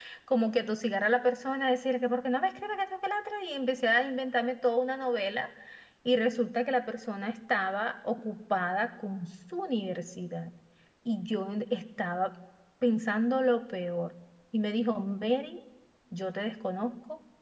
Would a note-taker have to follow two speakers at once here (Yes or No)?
No